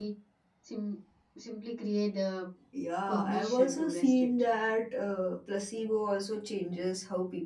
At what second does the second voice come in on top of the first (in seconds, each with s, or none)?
3.1 s